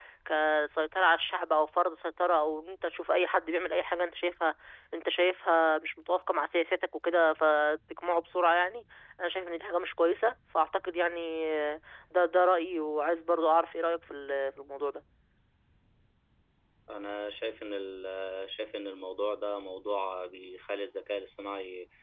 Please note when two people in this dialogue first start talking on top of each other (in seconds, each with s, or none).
none